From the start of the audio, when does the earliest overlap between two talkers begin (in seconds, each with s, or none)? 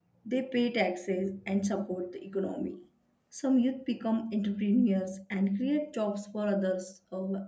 none